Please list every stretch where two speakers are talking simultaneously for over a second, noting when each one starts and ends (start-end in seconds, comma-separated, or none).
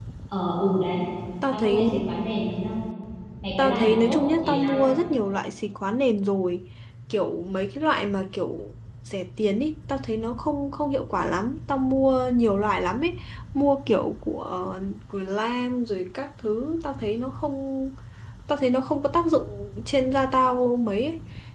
3.6-4.9